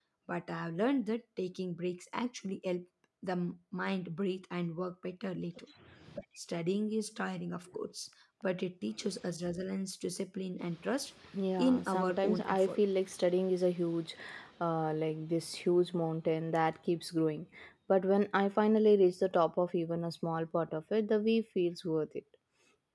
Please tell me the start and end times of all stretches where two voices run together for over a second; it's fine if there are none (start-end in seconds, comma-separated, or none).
11.6-12.8